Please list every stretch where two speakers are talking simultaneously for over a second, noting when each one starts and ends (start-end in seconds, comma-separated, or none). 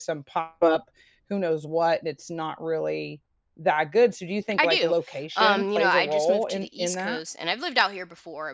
5.3-7.2